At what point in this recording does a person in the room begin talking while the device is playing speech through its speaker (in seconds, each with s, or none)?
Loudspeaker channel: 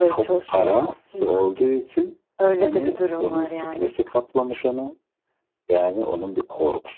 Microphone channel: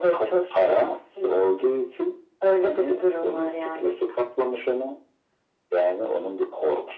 none